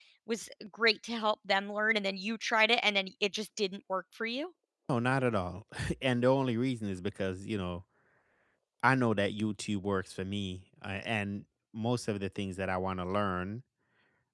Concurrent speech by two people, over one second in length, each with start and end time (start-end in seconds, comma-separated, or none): none